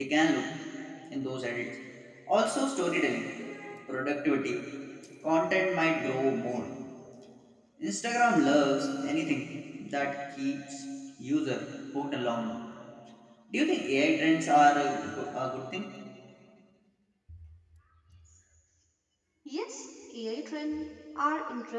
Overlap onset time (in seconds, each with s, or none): none